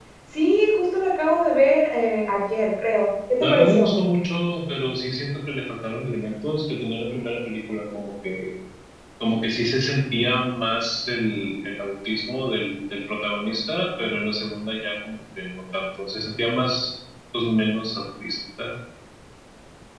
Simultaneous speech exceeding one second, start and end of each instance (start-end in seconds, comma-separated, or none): none